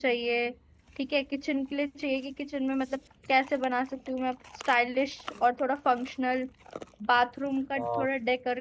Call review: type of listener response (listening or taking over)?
listening